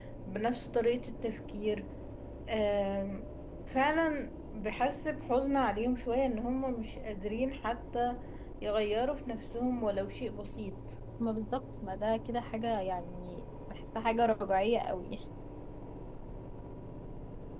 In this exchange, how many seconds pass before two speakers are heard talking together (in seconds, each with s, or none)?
none